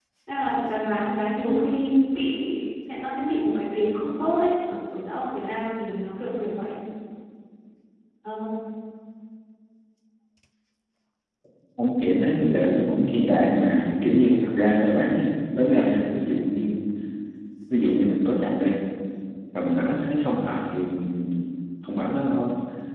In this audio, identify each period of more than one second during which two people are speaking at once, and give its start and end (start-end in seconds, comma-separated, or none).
none